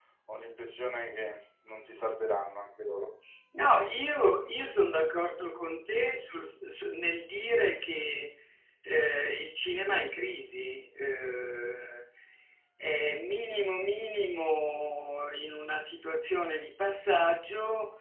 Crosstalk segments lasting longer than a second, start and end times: none

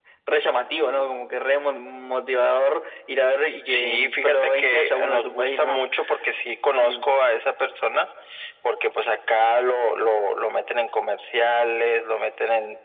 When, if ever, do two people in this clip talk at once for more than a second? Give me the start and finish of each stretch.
3.6-5.8

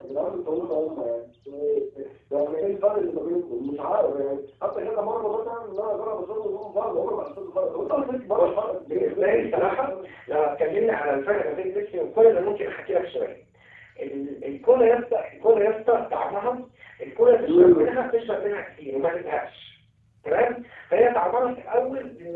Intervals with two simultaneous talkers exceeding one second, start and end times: 8.4-10.1

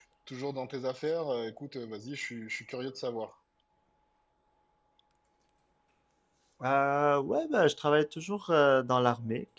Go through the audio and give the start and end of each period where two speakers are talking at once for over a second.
none

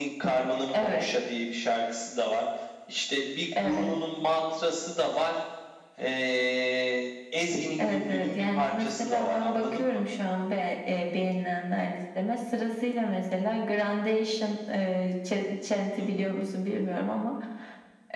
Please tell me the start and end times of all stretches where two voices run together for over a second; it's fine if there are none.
7.8-10.0

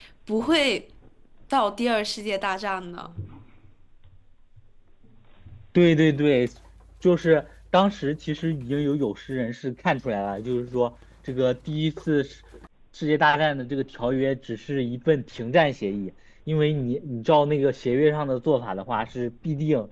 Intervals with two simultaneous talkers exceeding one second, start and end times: none

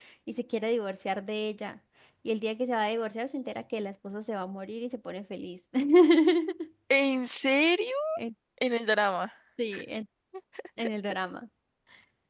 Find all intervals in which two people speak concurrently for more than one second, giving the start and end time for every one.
none

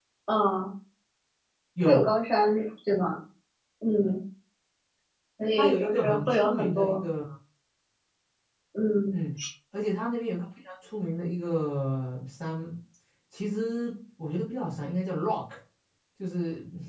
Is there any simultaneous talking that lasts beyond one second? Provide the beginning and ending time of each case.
5.6-7.0

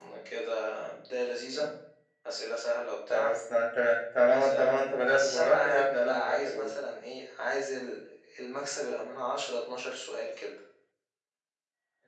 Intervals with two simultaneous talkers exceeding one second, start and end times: 5.1-6.7

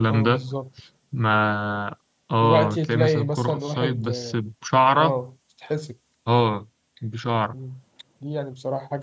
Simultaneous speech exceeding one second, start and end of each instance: 2.4-4.4

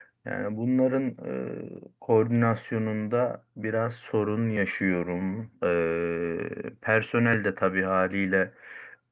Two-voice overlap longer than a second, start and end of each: none

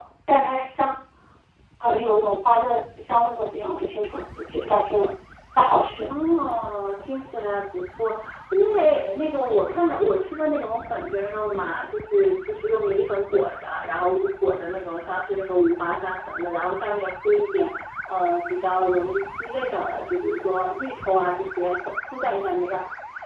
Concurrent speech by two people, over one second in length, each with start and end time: none

